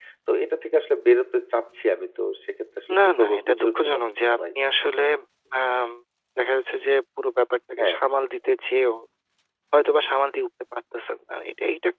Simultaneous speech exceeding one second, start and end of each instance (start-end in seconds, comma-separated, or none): 2.9-4.5